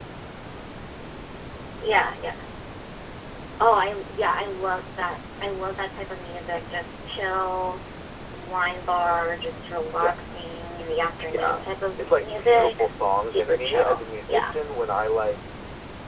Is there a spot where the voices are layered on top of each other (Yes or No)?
Yes